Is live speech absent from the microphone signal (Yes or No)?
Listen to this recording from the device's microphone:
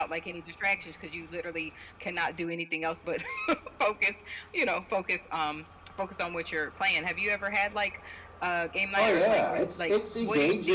No